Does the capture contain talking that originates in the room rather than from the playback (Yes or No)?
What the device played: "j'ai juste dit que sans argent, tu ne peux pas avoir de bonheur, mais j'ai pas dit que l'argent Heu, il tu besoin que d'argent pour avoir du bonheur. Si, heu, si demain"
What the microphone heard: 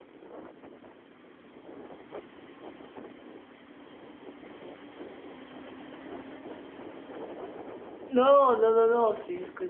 Yes